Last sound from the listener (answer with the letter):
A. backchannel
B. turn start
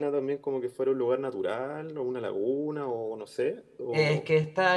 B